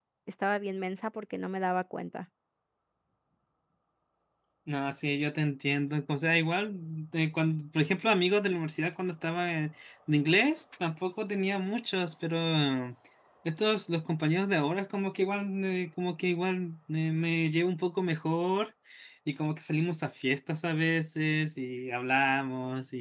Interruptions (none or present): none